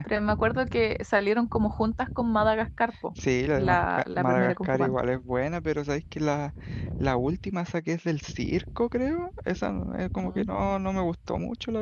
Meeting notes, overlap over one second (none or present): present